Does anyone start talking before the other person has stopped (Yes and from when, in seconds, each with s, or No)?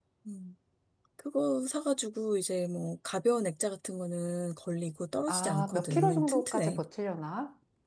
Yes, from 5.3 s